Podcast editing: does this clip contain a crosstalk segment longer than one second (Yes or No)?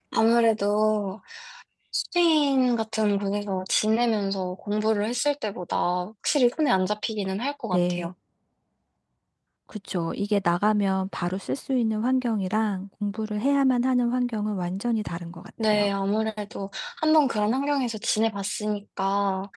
No